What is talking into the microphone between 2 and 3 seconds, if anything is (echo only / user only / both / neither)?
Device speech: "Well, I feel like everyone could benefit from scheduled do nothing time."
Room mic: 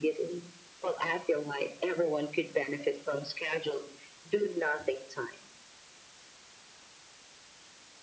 echo only